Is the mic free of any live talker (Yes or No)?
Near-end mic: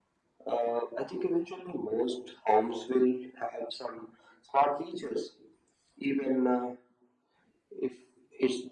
Yes